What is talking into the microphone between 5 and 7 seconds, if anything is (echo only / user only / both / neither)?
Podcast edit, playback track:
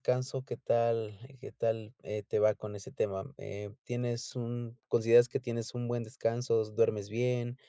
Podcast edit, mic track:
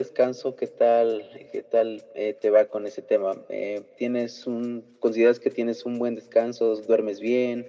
echo only